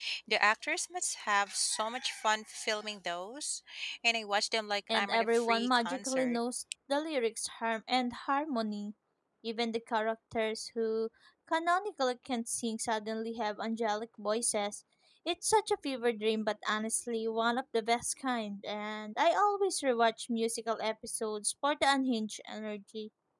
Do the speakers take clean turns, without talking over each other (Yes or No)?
No